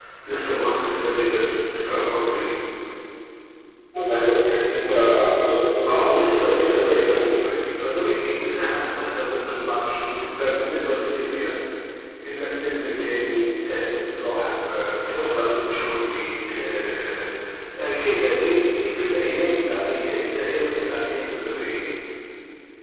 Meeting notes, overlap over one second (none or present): present